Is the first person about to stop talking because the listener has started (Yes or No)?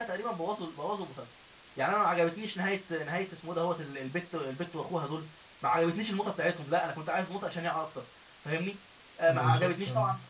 No